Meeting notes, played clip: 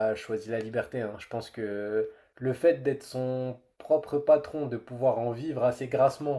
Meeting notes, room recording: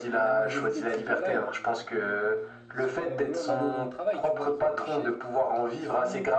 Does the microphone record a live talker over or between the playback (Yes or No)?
Yes